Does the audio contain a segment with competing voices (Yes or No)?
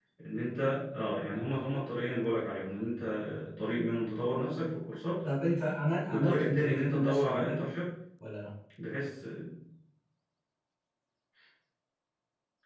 Yes